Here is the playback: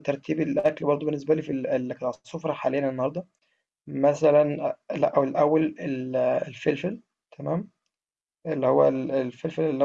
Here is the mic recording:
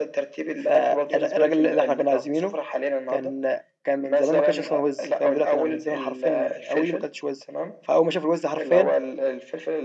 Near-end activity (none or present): present